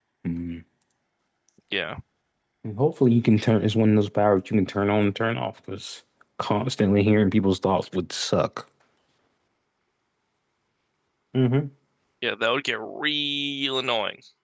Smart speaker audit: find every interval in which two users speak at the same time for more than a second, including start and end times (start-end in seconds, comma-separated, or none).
none